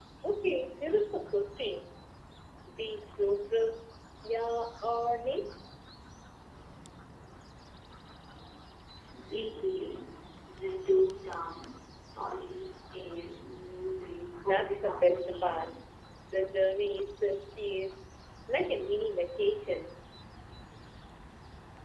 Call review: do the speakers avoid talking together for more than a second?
No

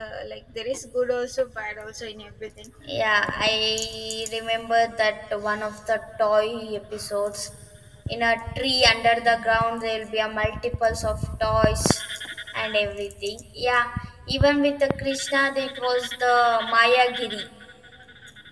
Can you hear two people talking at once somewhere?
No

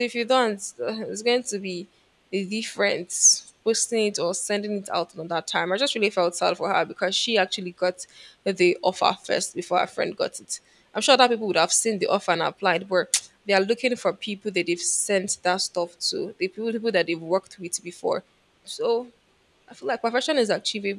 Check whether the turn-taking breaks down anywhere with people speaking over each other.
No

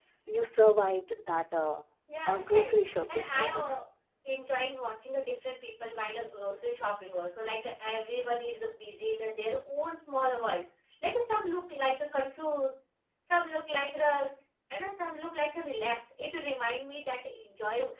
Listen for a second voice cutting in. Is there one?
Yes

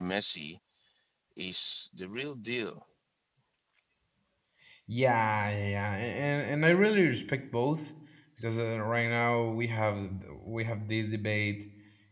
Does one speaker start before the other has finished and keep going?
No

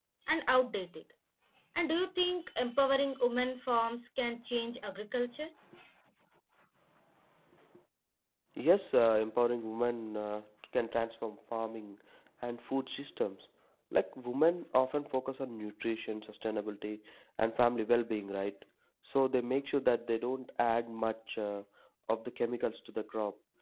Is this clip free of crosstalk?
Yes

